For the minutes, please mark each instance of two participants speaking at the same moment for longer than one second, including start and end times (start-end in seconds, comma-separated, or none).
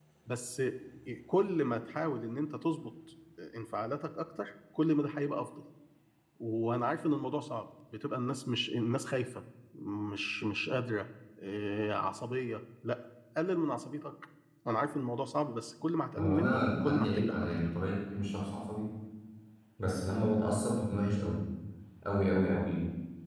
16.2-17.5